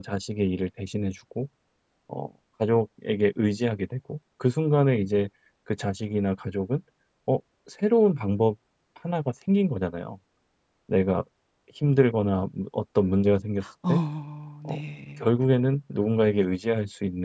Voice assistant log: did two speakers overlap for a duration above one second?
No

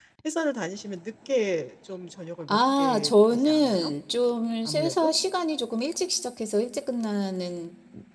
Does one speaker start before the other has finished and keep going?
Yes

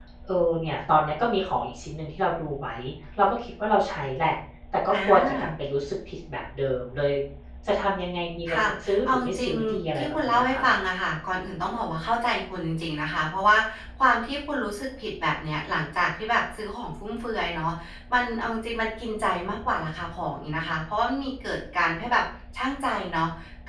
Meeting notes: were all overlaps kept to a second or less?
No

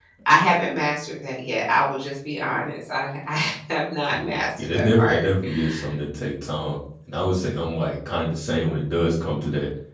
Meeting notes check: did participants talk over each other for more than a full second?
Yes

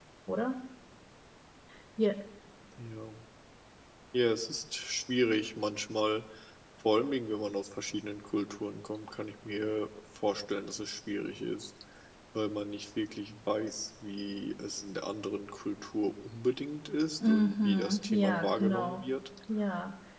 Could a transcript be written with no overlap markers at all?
No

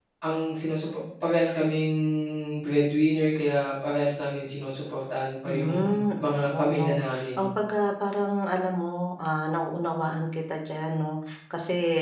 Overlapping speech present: Yes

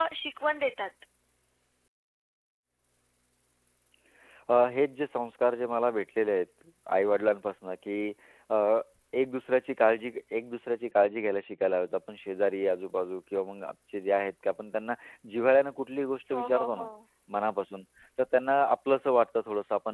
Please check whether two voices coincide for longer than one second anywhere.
No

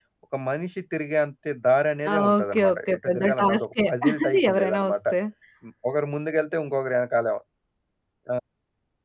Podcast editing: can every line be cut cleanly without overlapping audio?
No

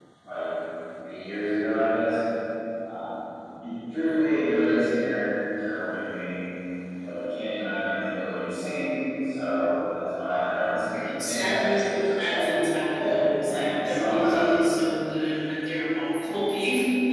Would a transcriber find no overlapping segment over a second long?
No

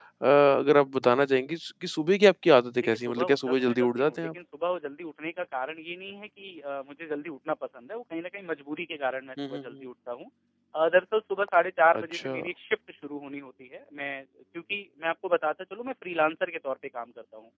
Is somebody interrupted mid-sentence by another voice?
Yes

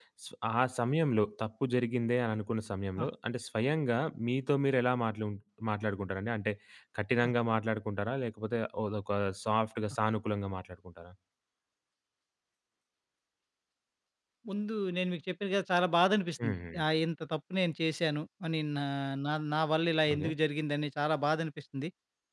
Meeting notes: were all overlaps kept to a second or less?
Yes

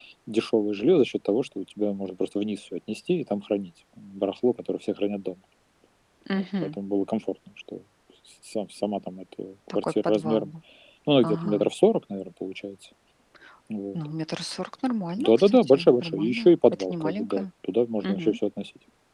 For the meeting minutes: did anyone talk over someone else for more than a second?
Yes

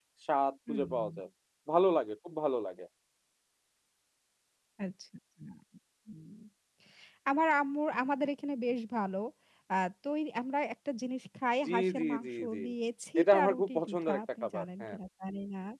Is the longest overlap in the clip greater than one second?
Yes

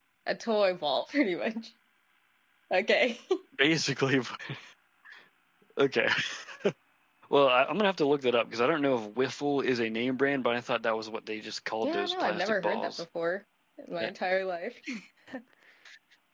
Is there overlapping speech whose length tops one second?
Yes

